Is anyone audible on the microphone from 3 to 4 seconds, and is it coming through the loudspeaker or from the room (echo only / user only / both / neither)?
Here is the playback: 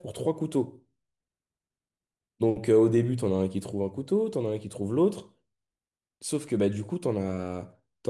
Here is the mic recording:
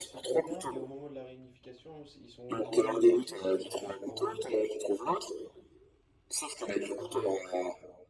both